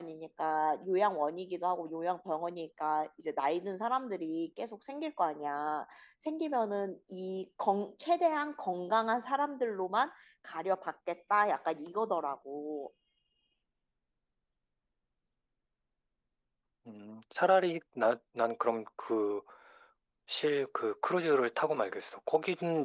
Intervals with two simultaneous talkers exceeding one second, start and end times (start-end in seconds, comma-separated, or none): none